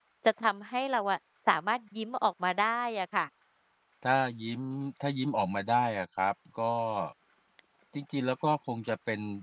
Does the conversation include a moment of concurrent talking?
No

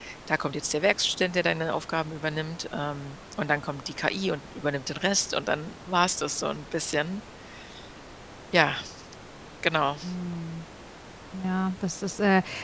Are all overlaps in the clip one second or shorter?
Yes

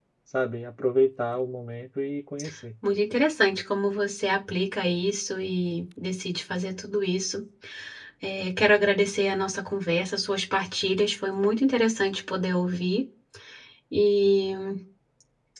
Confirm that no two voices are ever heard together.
Yes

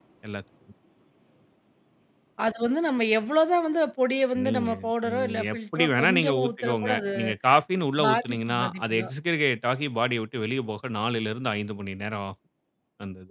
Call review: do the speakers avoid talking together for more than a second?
No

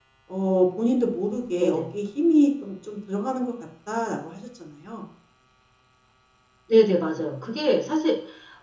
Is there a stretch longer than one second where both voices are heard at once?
No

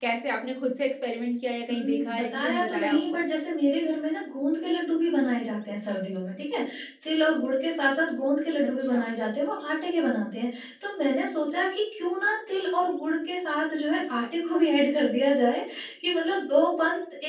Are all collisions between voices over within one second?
No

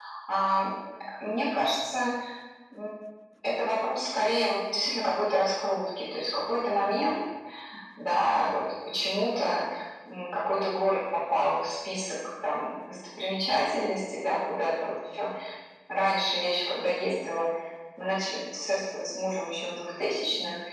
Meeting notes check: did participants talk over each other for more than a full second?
No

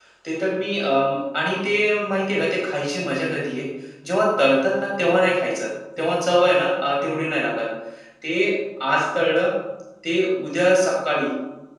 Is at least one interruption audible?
No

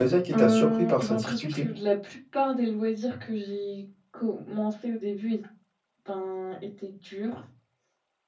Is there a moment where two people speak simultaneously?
Yes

